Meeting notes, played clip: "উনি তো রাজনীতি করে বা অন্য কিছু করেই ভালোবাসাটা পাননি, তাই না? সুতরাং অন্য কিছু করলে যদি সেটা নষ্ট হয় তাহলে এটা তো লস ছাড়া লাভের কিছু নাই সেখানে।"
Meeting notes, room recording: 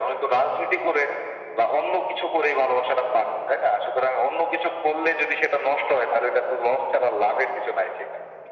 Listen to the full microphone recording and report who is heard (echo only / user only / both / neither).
echo only